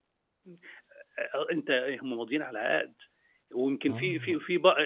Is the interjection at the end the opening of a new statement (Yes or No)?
No